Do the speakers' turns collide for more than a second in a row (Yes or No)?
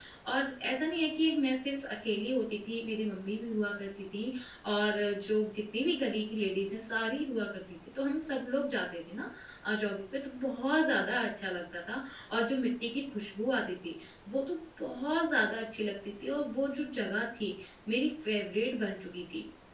No